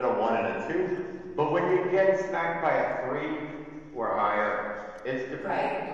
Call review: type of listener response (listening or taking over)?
taking over